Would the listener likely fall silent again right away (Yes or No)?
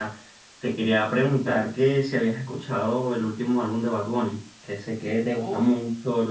Yes